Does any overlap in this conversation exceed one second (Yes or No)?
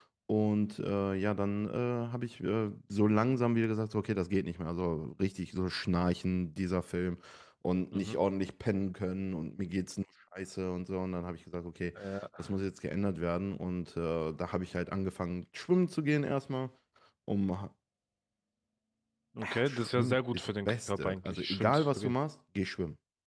Yes